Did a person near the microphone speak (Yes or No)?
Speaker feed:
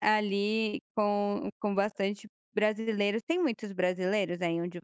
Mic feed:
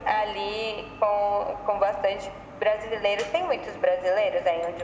No